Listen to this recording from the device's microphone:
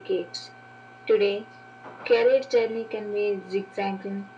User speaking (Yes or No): No